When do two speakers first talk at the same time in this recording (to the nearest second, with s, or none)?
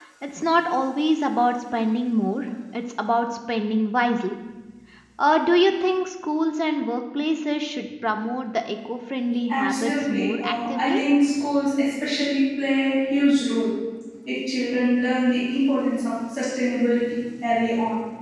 9 s